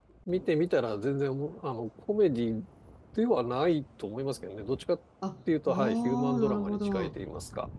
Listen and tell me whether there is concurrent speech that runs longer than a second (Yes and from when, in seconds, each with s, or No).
Yes, from 5.7 s